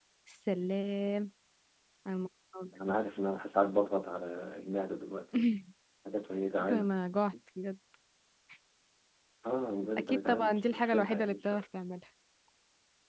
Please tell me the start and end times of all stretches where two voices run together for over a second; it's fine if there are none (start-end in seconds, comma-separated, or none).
10.0-11.6